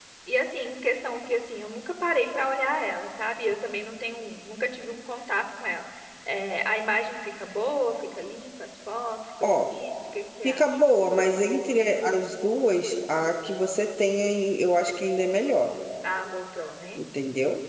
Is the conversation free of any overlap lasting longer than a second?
Yes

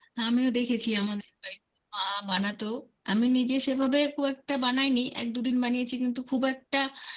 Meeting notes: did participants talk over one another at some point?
No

